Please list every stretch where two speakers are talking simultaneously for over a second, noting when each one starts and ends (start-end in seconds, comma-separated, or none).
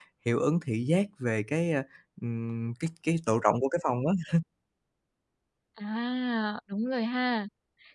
none